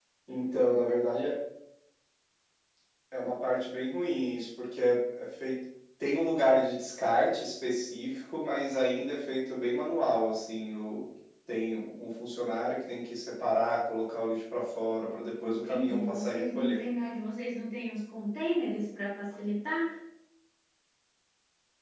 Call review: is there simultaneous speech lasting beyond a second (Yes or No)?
Yes